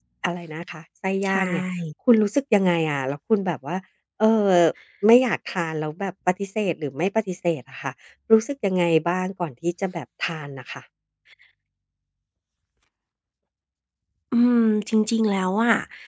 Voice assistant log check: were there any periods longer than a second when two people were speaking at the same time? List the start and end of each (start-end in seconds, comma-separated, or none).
none